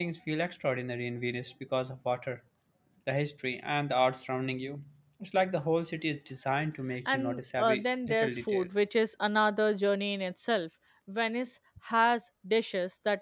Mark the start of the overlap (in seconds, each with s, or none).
7.0 s